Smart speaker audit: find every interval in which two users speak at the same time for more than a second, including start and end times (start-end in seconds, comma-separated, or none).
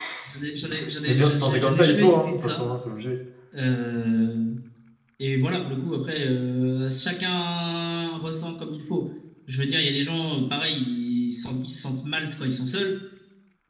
1.0-2.7